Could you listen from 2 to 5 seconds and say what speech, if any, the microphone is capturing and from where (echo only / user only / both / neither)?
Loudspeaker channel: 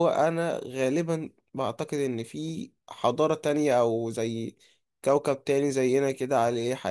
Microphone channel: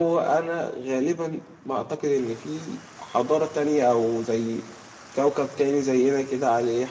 echo only